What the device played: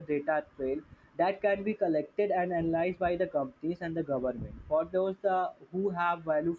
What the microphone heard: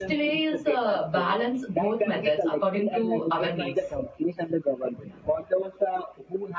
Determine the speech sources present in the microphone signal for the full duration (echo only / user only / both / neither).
both